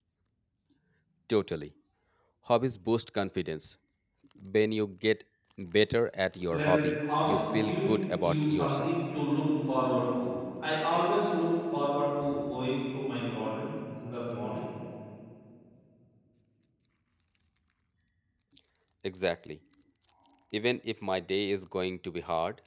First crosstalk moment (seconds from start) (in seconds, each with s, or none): 6.5 s